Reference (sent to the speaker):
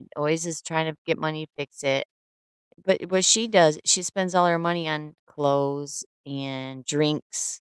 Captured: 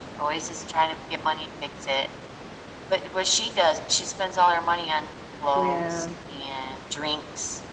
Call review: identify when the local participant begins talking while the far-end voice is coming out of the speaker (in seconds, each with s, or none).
5.5 s